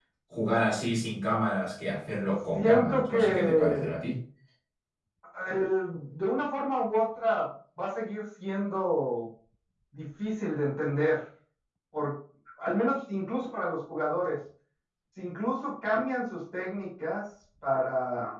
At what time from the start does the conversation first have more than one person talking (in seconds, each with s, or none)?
2.5 s